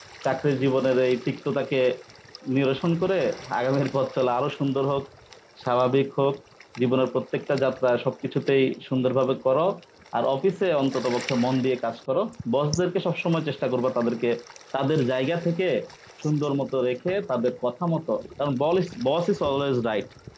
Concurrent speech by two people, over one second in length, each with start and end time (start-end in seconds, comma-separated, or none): none